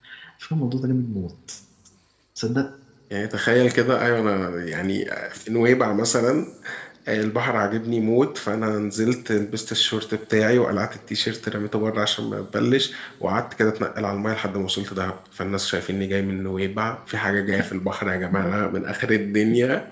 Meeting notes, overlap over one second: none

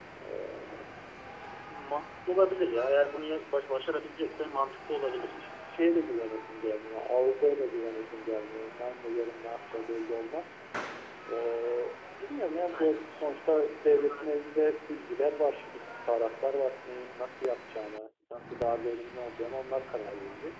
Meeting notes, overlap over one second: none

